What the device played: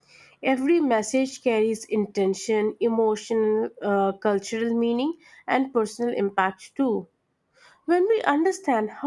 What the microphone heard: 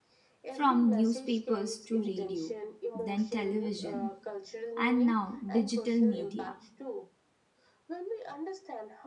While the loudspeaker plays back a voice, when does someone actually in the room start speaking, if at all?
0.5 s

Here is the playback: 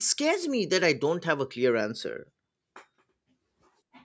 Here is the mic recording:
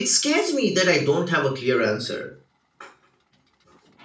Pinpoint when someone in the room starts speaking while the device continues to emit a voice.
none

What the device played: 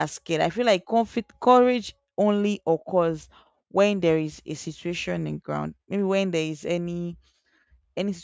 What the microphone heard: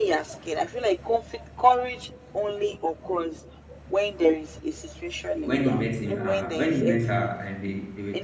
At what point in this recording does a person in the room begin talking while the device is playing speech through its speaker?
5.4 s

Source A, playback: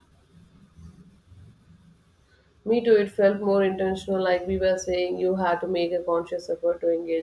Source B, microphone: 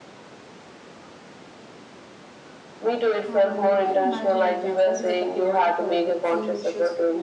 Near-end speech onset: 3.3 s

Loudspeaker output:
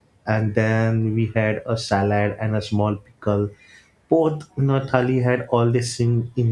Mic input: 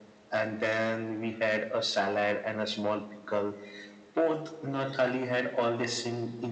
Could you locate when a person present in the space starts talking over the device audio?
none

